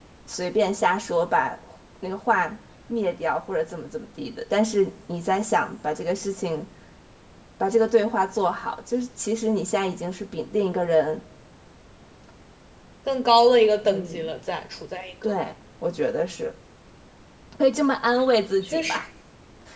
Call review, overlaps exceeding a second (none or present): none